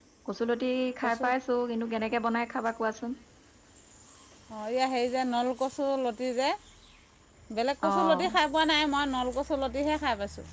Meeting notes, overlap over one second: none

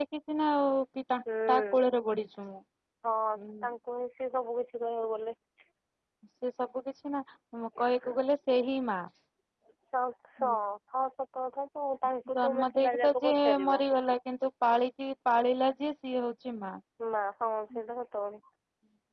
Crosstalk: present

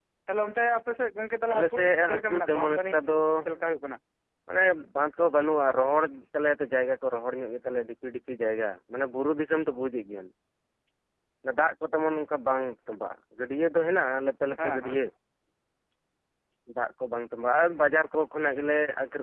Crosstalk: present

